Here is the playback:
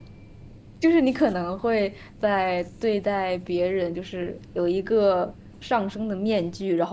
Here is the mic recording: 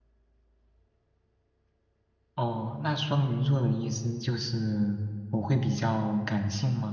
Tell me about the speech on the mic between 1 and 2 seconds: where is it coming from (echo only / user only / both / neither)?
neither